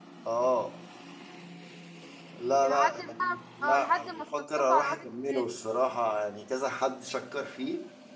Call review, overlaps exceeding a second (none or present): present